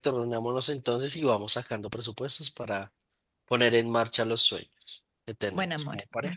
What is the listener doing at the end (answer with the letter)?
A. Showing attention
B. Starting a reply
B